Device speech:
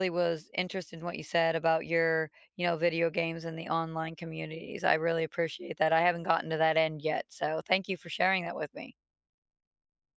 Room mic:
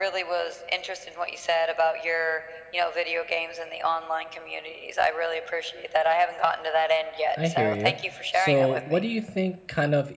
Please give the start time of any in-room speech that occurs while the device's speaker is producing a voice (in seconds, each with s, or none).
7.4 s